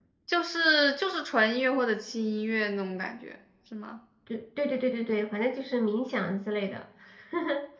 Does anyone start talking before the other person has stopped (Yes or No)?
No